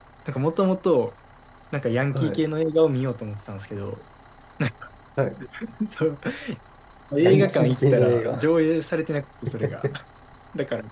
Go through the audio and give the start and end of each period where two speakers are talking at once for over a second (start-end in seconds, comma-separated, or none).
7.2-8.4